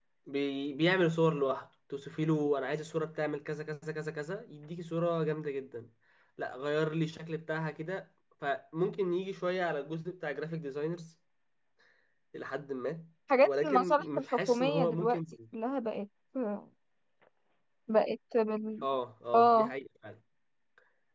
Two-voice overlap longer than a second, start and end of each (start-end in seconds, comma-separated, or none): 13.4-15.2